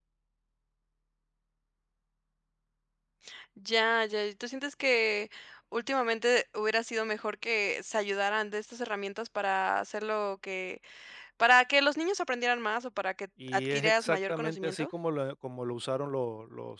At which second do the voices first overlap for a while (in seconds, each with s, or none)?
13.4 s